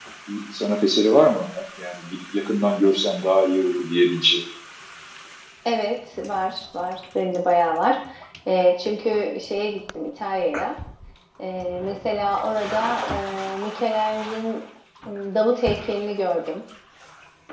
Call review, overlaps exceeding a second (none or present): none